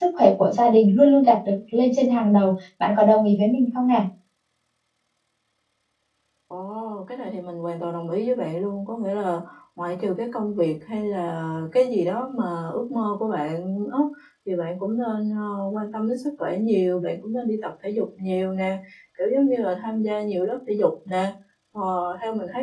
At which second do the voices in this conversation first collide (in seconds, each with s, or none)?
none